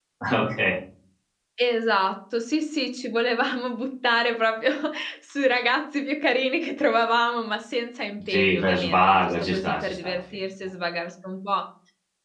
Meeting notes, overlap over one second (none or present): present